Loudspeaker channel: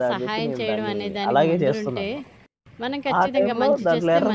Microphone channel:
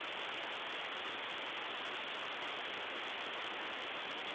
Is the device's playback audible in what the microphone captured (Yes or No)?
No